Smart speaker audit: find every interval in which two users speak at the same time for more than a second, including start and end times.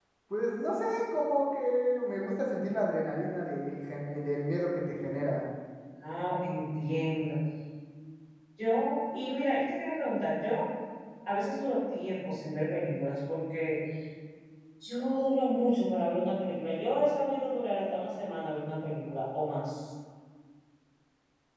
none

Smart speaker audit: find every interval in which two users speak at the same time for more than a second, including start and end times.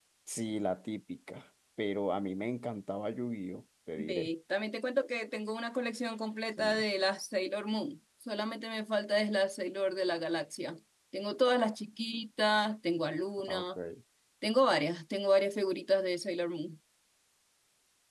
none

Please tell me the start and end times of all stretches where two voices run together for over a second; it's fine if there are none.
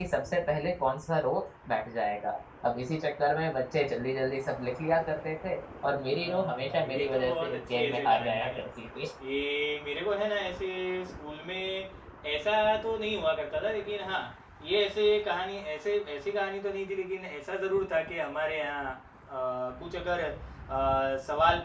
6.1-8.6

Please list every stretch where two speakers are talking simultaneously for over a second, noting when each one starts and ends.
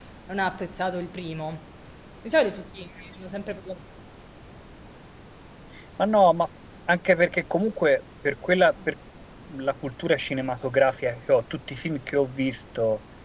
none

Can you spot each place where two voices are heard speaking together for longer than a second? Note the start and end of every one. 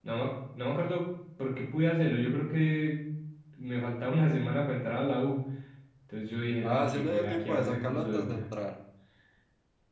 6.6-8.4

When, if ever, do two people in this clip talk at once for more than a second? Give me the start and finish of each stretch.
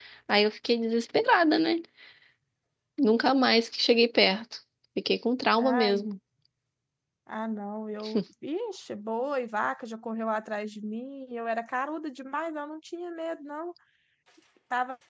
none

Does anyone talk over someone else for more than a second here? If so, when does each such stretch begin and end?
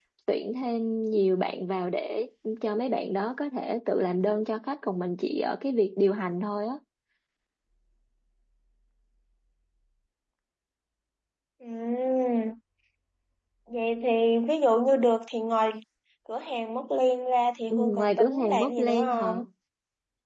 17.7-19.4

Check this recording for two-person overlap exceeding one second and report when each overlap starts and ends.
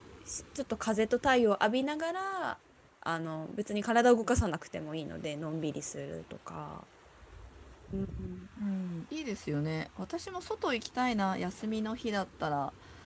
none

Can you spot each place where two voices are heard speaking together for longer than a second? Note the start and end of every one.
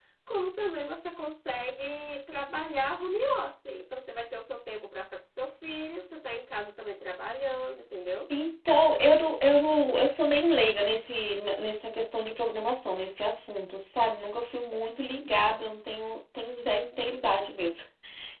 none

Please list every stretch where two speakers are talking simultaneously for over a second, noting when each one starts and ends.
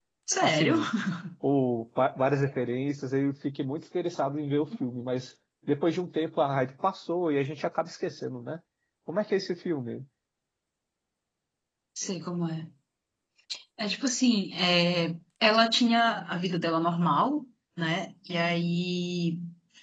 none

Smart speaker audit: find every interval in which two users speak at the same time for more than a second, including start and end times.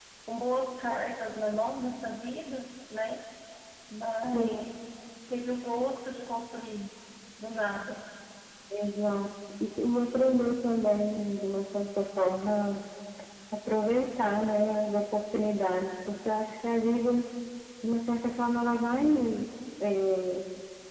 none

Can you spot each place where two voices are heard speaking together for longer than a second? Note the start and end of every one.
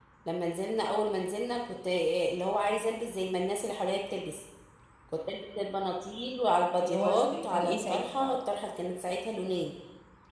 6.8-8.3

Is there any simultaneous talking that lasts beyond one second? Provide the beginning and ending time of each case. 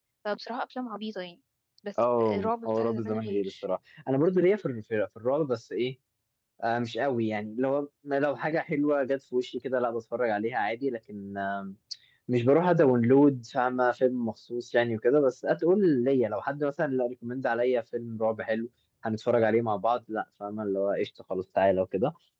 2.2-3.5

